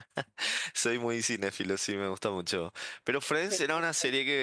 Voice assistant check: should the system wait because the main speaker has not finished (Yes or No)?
Yes